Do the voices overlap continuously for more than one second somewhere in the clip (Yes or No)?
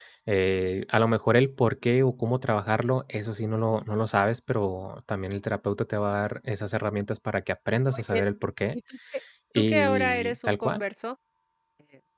Yes